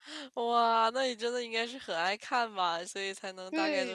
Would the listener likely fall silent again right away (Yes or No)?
No